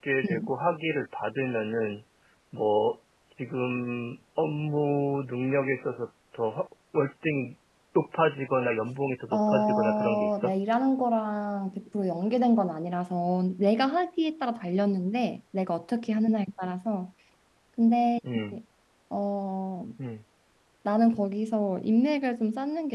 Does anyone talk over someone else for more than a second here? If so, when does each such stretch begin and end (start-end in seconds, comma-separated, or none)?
9.3-10.5